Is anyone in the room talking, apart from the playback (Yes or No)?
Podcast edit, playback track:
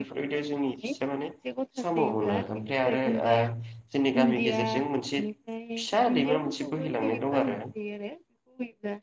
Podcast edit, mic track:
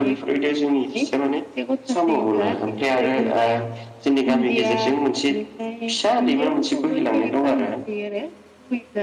No